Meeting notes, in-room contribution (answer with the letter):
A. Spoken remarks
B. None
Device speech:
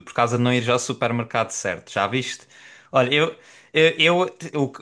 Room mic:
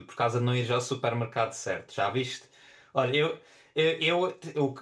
B